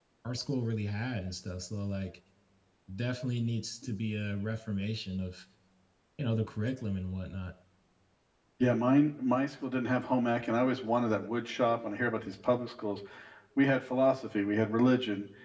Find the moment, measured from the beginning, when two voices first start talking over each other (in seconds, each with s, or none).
none